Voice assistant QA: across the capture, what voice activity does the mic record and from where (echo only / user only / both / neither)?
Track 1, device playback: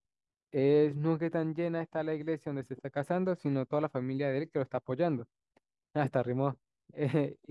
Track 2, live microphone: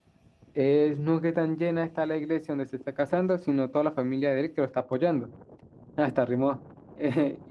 echo only